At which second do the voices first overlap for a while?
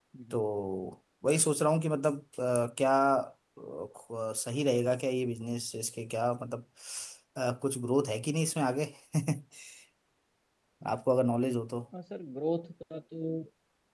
none

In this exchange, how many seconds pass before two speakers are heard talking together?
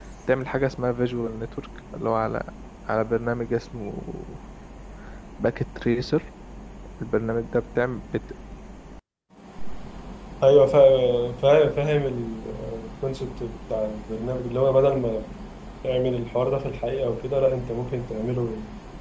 none

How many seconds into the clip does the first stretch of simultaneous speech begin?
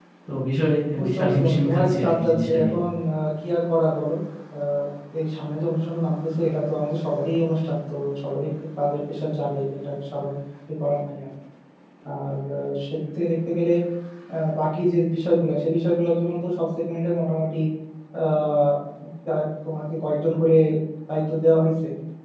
1 s

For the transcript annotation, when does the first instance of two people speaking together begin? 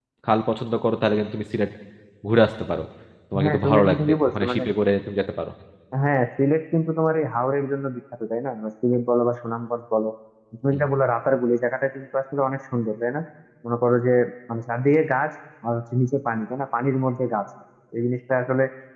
3 s

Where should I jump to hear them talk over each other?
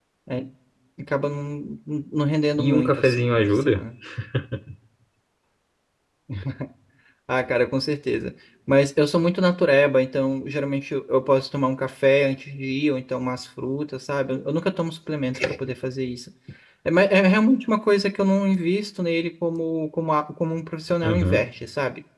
3 s

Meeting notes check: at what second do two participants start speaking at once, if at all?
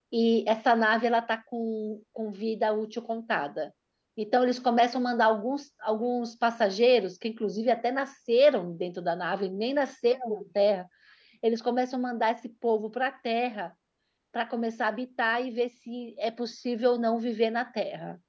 none

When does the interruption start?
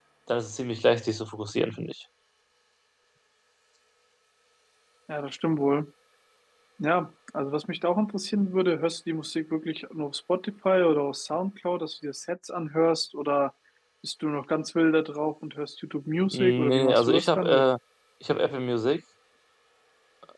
16 s

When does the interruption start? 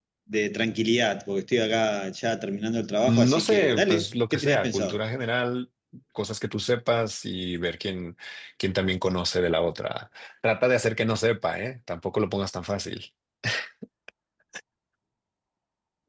3 s

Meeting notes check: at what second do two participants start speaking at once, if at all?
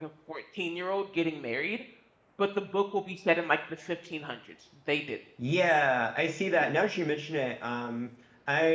none

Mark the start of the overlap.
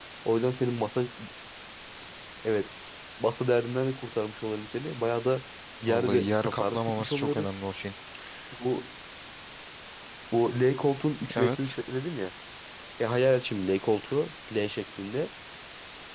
6 s

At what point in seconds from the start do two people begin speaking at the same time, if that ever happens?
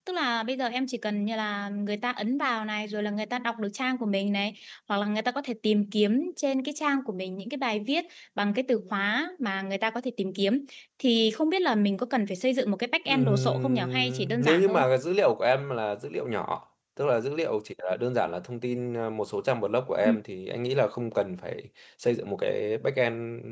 13 s

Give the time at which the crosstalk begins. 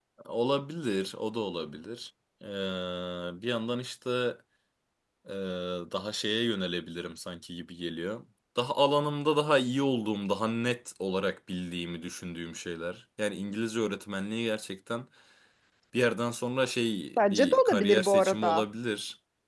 17 s

